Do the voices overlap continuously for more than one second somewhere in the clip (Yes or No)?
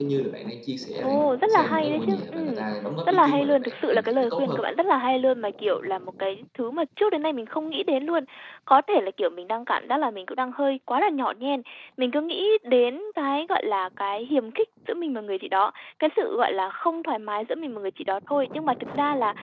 Yes